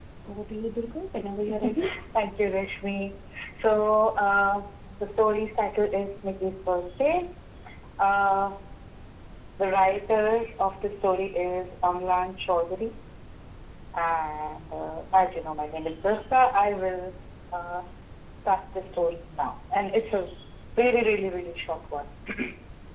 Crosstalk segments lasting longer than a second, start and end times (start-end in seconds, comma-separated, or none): none